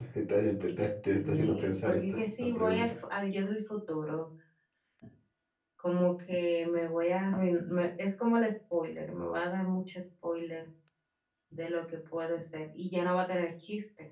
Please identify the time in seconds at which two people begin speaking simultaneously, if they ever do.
1.1 s

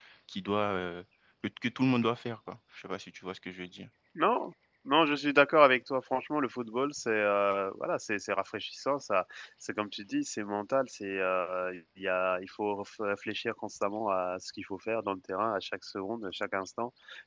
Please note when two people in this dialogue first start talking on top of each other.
none

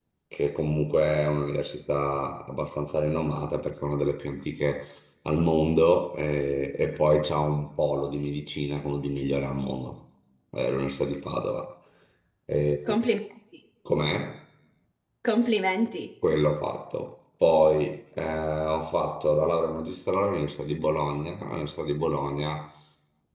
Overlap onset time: none

